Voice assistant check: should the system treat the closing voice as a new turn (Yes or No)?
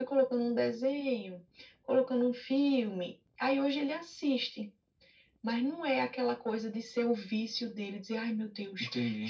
No